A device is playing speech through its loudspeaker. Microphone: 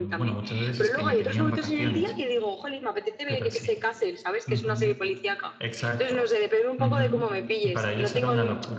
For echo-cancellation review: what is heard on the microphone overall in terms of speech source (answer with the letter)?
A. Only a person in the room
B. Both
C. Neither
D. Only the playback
B